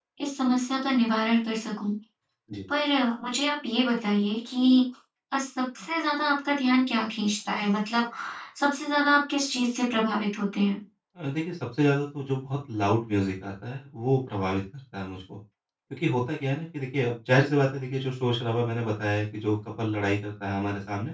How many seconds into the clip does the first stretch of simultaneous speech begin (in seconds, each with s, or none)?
none